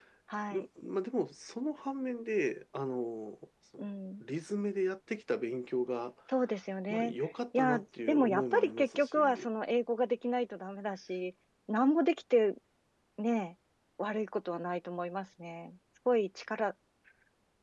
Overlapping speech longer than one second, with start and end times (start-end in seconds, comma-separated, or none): 7.5-9.4